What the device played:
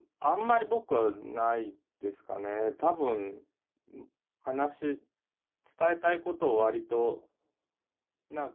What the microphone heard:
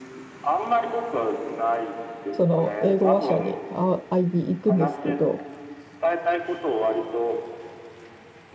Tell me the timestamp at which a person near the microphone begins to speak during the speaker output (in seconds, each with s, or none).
2.3 s